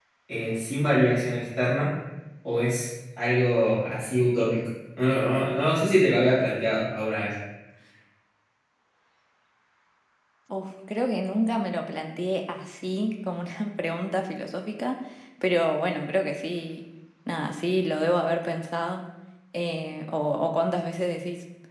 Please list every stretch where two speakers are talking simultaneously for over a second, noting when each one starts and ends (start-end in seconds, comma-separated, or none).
none